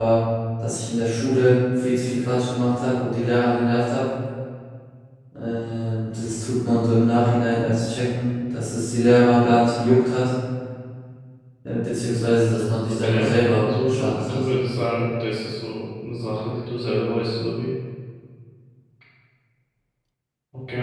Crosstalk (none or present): present